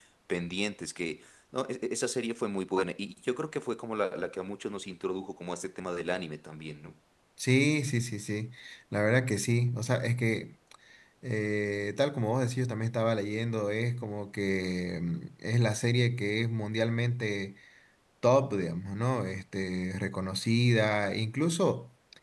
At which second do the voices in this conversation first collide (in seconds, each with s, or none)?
none